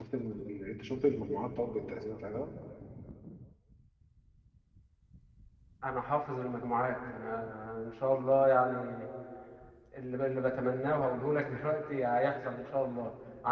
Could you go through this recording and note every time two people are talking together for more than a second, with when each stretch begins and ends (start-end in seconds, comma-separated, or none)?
none